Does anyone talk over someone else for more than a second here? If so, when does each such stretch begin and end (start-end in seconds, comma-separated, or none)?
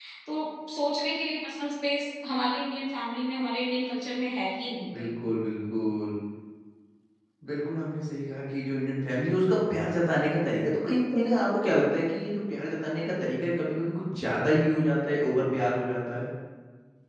none